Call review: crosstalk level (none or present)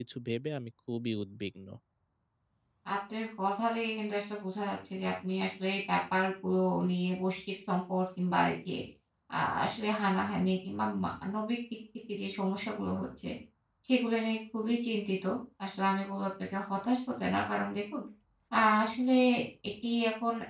none